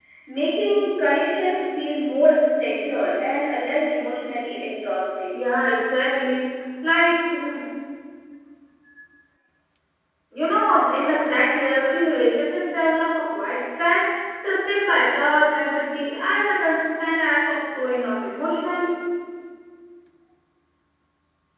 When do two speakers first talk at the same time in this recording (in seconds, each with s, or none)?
none